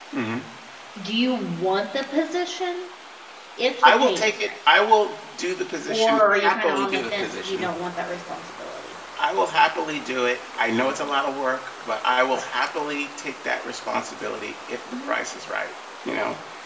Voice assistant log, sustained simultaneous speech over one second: present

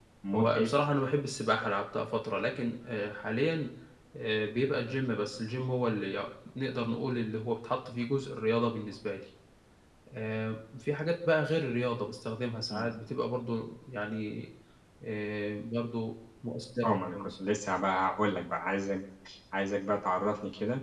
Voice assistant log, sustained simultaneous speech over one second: none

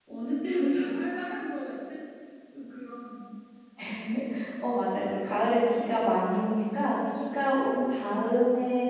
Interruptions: none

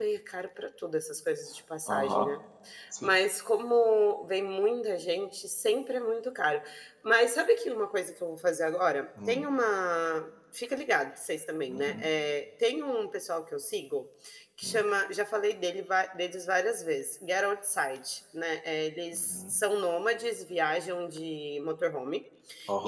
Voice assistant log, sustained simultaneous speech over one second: none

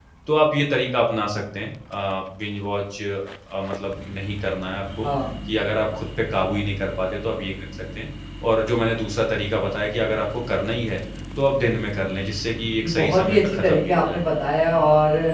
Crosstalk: present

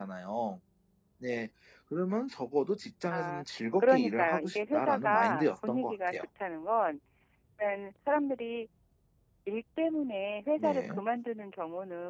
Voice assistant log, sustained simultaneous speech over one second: present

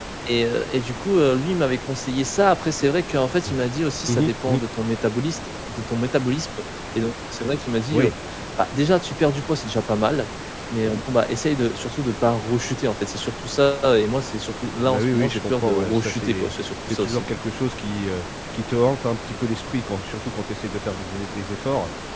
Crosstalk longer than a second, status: present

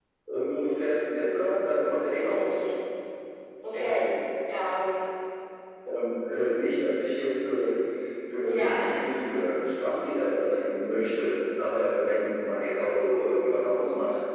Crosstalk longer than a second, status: none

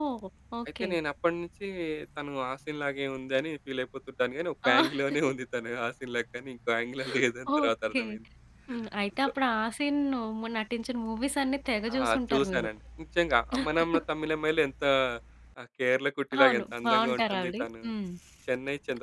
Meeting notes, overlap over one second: present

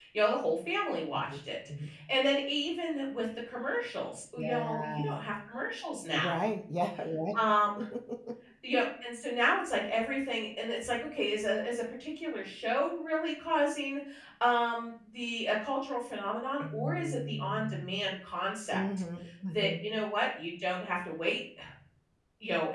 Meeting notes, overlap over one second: present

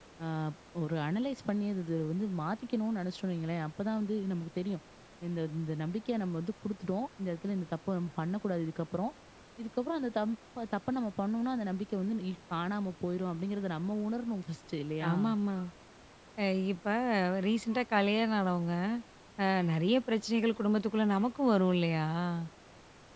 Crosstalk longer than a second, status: none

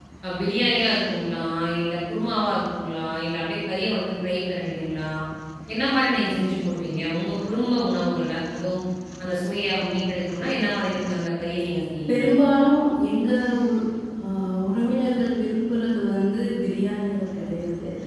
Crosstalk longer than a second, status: none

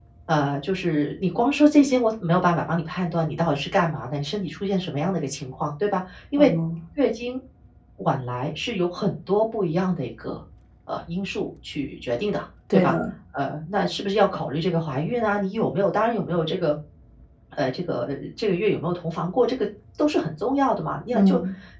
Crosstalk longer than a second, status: none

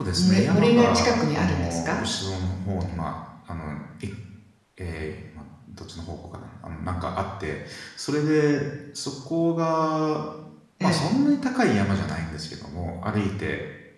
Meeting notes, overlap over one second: present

